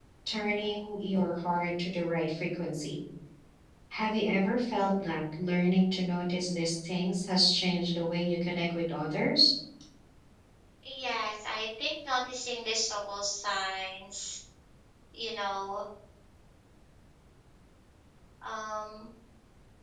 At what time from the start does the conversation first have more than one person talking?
none

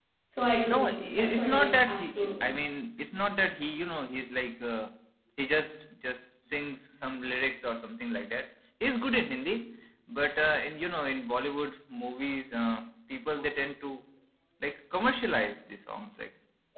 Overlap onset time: 0.7 s

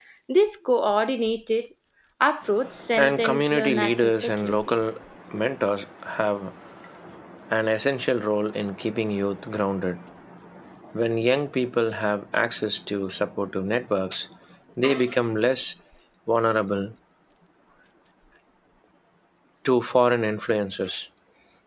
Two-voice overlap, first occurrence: 3.0 s

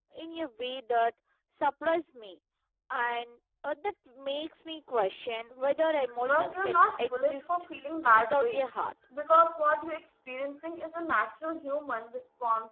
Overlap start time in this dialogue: 6.2 s

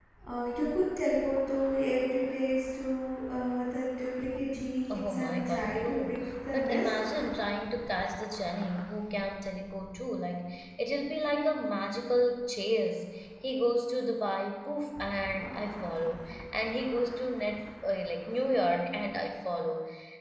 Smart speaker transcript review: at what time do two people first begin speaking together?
4.9 s

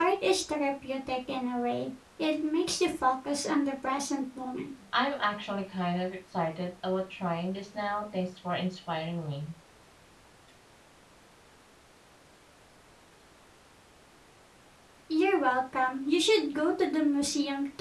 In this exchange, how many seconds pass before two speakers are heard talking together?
none

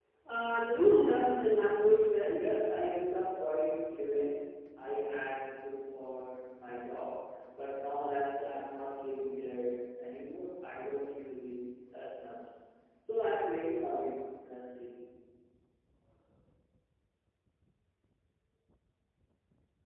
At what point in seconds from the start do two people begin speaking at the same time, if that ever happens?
none

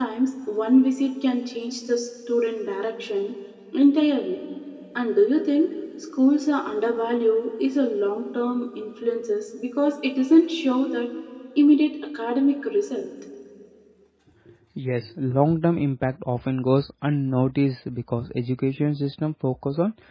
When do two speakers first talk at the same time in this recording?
none

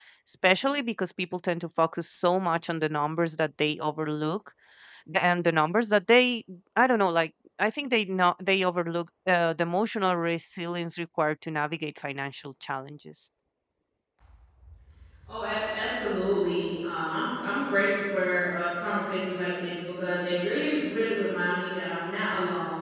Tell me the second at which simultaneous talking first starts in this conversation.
none

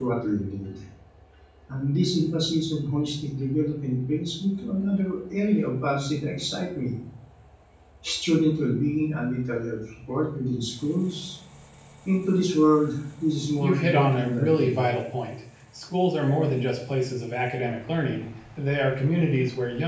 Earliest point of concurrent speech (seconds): 13.6 s

